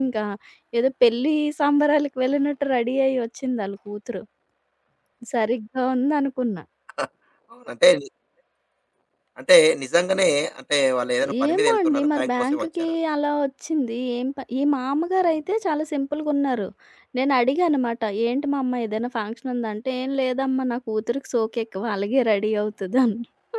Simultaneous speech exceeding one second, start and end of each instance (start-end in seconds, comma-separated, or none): 11.5-12.9